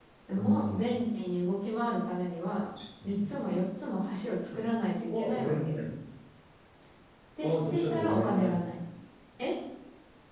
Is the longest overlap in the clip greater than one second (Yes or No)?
Yes